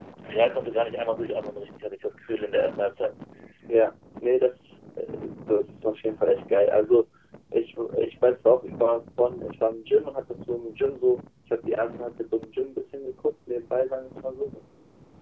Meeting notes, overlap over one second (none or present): none